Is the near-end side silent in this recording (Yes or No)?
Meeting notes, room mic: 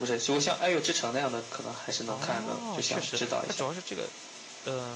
No